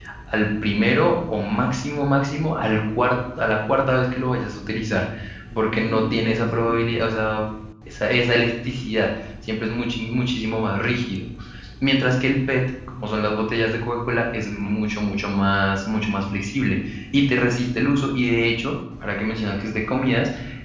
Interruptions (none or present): present